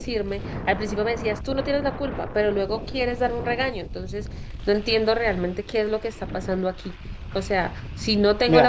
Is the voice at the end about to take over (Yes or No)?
Yes